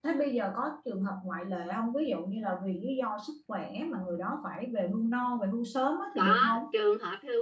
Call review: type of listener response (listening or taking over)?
taking over